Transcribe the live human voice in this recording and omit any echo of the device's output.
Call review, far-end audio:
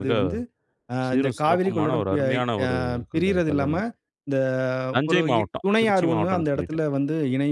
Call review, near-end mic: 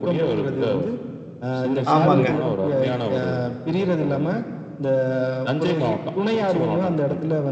ஆமாங்க.

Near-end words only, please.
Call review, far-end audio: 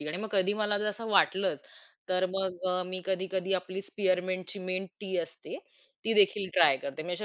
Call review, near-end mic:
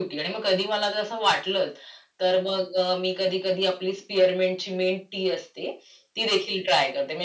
none

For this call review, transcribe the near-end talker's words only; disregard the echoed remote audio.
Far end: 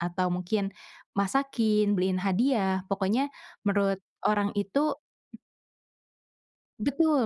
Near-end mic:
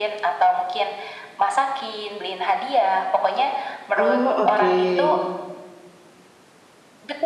Oh, oke.

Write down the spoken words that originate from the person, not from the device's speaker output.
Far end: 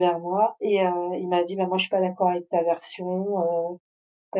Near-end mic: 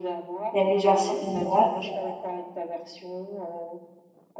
«Elle a eu du harcèlement moral».

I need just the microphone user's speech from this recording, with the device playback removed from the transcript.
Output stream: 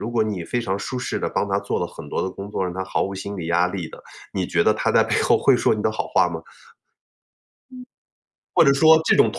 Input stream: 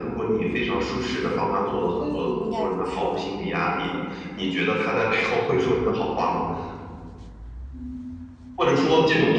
嗯，应该不是的，嗯。

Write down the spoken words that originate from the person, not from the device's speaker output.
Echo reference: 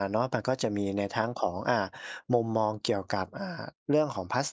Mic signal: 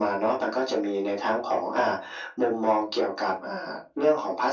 none

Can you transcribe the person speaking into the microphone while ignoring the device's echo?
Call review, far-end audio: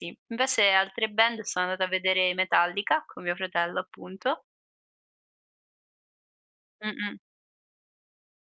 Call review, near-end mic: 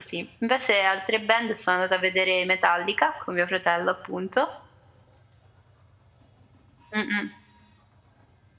none

